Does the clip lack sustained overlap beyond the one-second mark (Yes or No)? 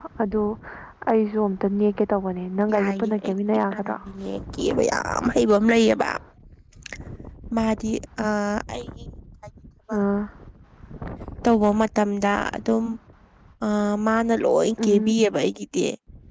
No